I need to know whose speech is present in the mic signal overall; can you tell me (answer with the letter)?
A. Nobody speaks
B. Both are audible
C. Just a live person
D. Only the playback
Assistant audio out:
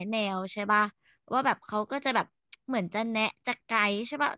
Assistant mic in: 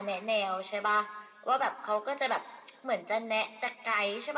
D